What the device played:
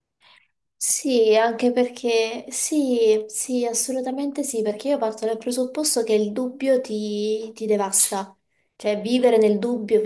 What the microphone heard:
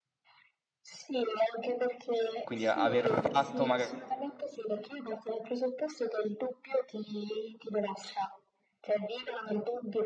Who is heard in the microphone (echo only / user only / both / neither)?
both